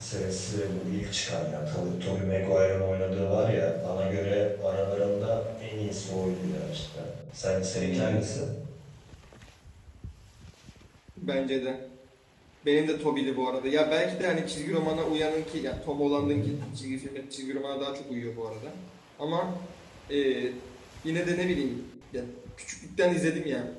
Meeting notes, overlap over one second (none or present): none